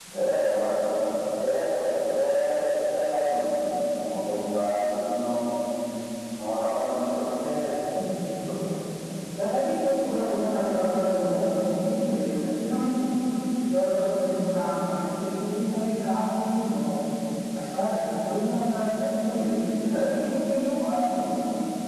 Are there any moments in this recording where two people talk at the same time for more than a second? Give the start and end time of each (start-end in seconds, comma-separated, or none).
none